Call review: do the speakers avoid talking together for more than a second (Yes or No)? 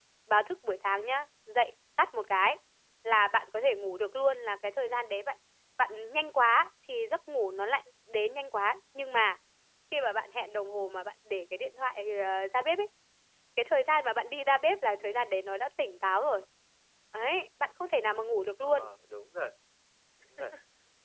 Yes